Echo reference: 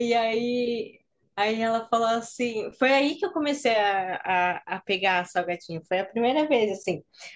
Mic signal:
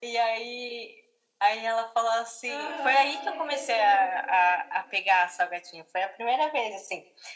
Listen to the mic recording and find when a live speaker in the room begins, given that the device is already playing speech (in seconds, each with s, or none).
2.5 s